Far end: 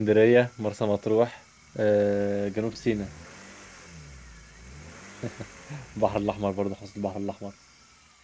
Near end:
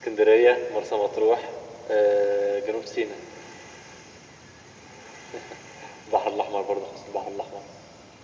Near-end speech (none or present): none